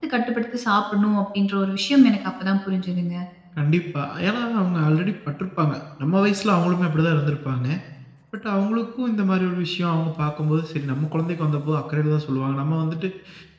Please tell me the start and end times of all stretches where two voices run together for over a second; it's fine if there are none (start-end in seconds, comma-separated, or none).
none